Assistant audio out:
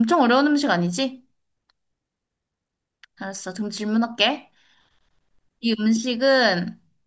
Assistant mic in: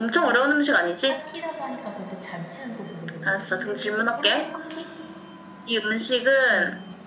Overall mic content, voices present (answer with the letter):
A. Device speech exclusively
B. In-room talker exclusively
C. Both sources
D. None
C